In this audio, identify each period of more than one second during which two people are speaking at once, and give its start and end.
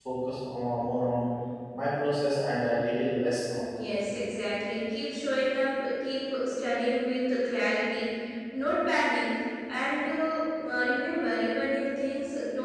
none

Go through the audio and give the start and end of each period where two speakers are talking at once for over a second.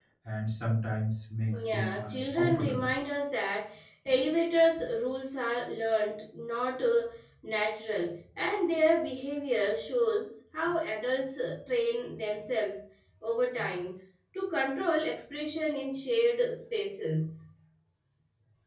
1.6-2.9

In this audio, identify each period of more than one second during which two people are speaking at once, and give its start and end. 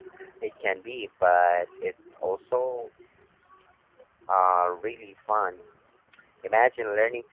none

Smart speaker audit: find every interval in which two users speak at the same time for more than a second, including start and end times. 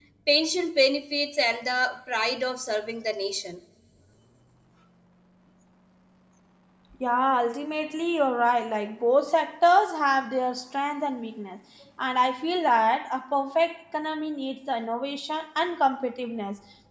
none

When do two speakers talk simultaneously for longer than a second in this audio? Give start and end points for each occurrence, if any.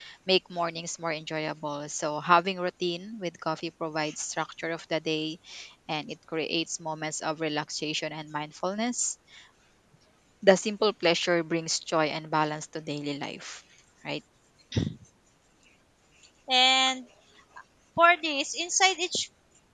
none

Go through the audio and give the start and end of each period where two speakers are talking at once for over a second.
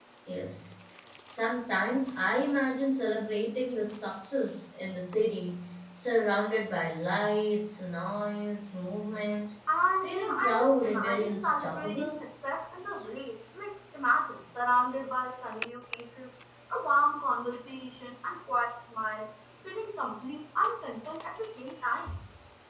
10.0-12.2

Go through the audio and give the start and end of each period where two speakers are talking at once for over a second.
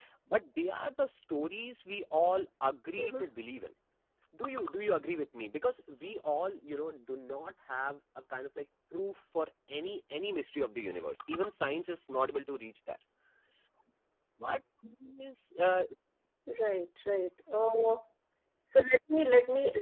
none

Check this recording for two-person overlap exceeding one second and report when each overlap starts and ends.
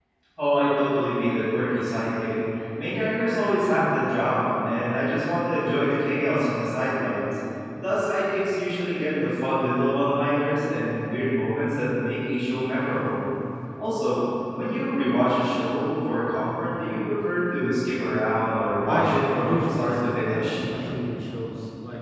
18.8-20.6

